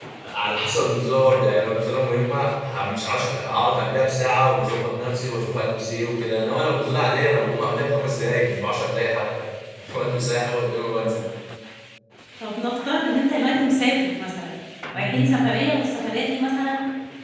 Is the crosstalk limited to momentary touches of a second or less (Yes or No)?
Yes